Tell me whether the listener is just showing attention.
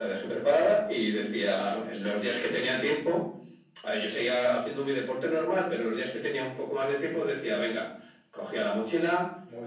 Yes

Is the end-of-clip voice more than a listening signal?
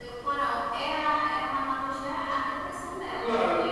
No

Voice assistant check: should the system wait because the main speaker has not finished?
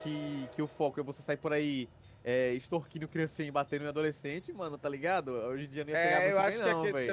No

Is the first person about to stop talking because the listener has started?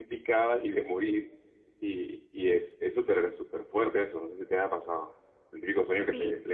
Yes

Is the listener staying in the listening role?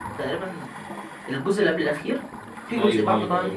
No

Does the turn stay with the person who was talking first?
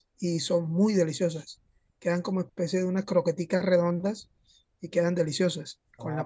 No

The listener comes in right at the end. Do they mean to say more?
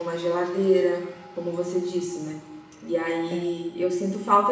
No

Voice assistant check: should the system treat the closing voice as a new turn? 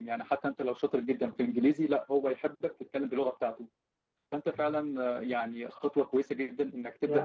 No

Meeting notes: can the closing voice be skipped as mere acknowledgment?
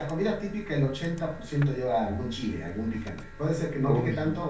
Yes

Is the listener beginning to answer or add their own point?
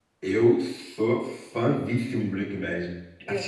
No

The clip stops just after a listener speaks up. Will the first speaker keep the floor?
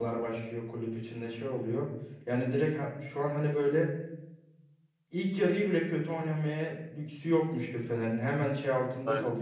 Yes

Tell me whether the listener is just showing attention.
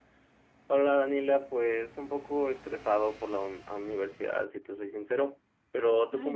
No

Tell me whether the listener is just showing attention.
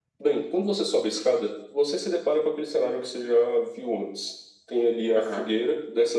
Yes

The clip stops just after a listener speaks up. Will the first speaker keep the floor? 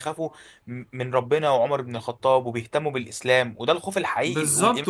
No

